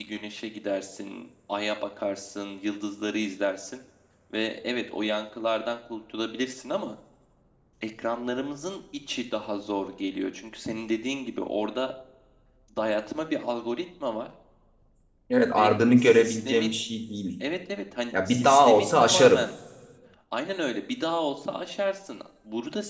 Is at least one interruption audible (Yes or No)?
Yes